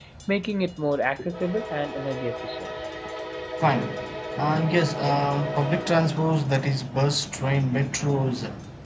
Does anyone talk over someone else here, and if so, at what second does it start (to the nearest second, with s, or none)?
none